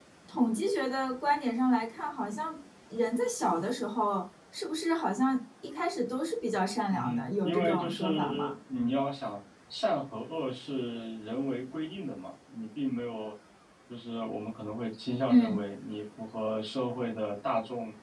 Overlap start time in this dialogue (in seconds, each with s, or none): 6.9 s